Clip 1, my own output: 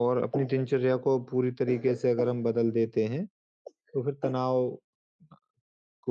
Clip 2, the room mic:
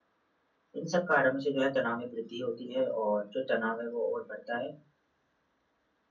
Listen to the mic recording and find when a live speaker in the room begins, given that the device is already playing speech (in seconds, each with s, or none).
0.8 s